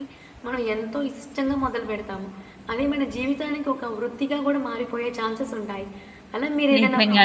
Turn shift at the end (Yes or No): No